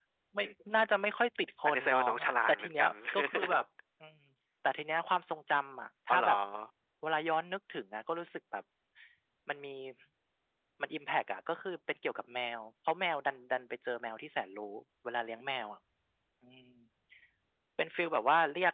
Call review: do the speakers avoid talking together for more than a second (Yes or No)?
No